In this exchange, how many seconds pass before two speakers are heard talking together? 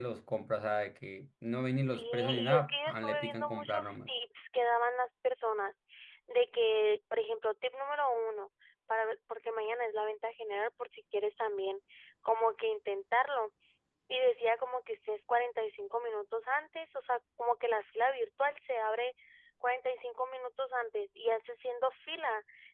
1.9 s

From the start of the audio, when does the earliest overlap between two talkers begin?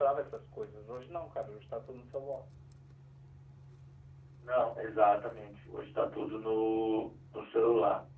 none

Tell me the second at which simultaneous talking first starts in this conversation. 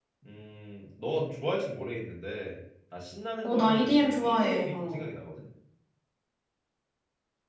3.4 s

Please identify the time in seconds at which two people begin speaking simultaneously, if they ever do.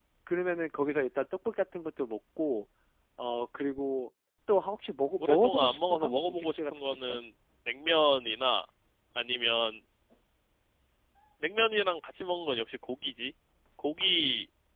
5.2 s

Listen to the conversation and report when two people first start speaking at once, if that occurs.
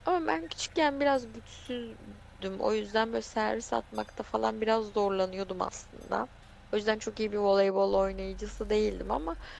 none

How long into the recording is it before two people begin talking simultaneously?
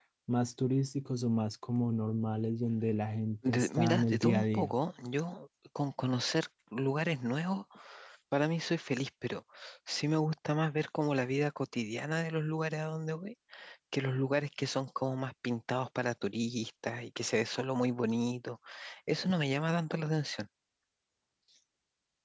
3.4 s

